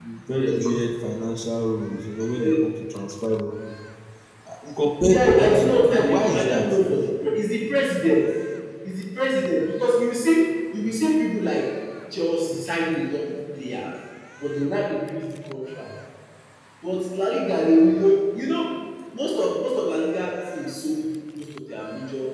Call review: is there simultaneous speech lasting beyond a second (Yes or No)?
Yes